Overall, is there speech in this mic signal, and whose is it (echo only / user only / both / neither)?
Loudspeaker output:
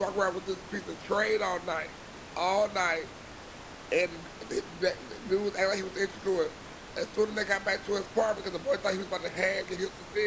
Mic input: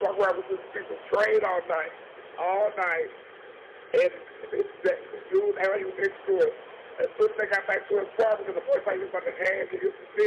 echo only